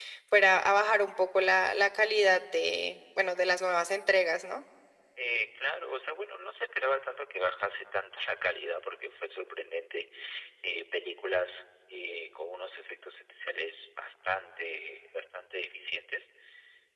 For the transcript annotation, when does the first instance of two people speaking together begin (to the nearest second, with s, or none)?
none